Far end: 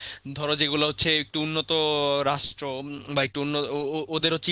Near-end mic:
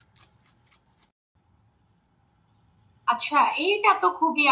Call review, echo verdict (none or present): none